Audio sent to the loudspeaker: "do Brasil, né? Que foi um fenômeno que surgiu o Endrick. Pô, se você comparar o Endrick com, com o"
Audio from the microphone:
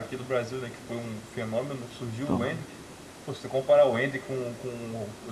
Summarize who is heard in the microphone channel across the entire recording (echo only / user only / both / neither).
both